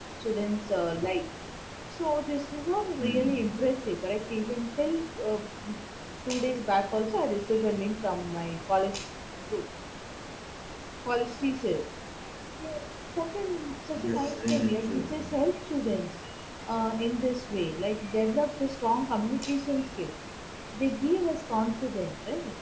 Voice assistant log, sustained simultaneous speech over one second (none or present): present